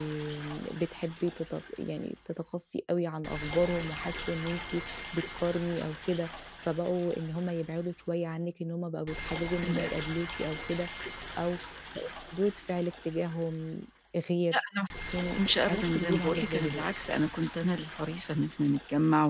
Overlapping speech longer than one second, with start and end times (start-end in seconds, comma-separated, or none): 15.4-16.8